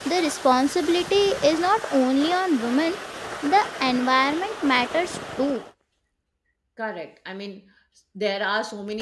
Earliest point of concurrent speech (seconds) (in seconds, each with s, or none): none